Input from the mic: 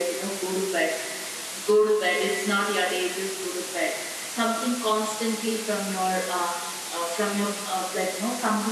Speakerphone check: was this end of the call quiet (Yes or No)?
Yes